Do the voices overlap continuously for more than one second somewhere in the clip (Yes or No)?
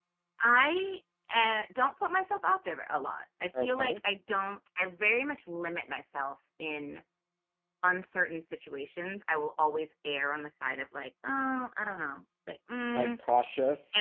No